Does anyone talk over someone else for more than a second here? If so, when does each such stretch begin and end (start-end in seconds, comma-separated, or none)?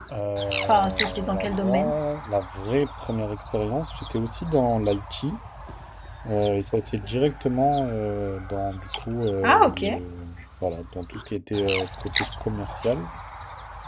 0.7-1.9